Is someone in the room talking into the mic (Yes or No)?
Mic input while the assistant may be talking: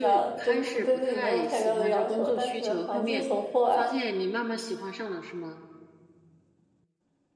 Yes